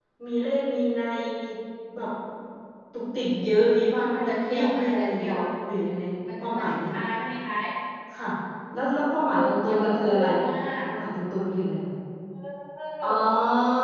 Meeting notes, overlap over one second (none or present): present